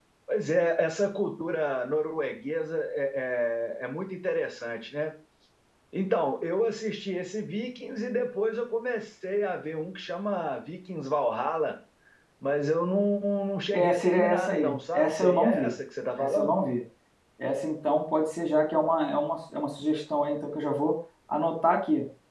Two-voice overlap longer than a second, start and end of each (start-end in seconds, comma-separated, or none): 13.7-15.7